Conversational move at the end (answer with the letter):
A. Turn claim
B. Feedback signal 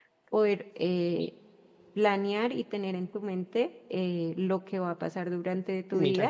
A